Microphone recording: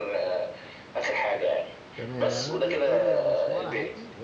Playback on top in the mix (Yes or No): Yes